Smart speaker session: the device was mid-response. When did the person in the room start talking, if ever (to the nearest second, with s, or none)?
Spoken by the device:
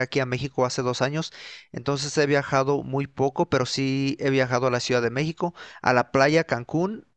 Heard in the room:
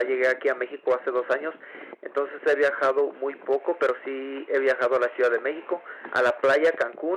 none